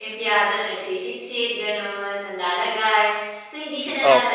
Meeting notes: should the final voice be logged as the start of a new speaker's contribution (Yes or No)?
No